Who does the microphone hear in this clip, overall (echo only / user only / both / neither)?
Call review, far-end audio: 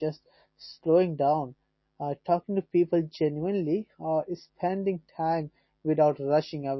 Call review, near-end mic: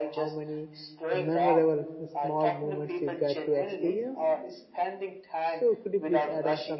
both